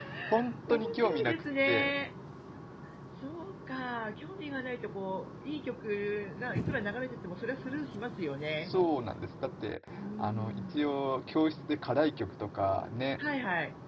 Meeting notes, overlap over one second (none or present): present